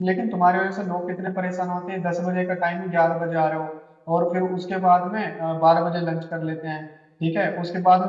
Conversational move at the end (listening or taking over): listening